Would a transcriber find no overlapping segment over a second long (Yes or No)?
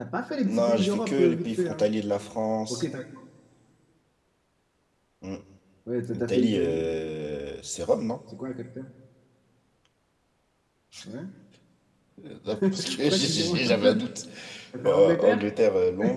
No